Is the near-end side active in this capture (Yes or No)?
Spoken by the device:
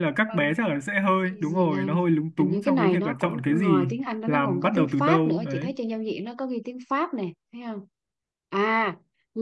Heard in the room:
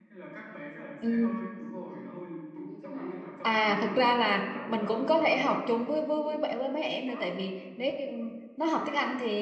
Yes